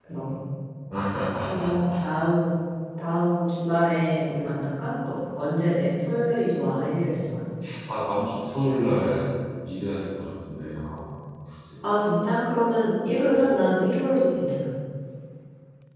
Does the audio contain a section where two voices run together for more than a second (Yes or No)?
No